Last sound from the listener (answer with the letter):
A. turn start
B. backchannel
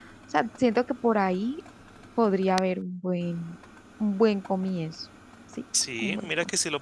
A